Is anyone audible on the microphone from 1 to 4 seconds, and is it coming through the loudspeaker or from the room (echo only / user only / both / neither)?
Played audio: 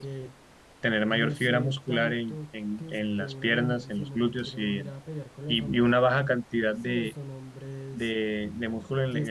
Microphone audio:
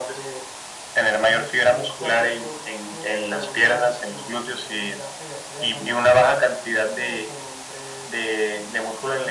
echo only